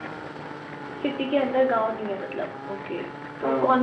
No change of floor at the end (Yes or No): Yes